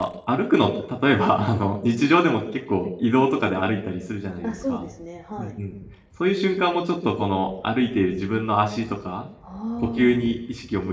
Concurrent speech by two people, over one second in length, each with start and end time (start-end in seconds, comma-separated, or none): none